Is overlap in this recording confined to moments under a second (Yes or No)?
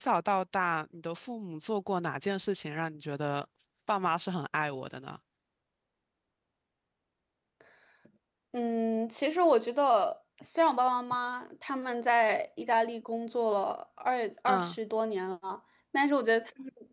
Yes